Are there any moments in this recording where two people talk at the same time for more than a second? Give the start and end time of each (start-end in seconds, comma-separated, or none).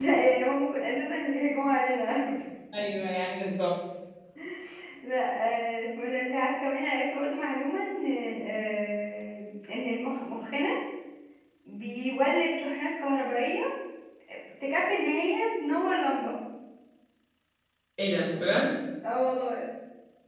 none